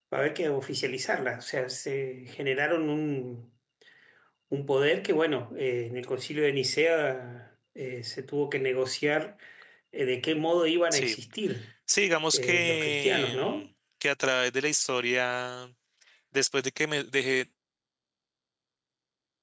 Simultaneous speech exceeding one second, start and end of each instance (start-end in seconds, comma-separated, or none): 12.3-13.7